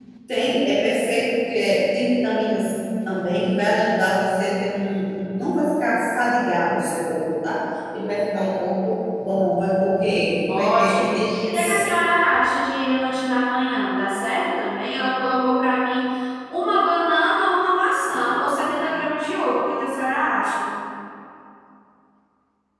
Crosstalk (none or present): present